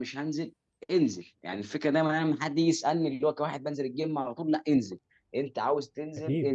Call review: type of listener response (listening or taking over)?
listening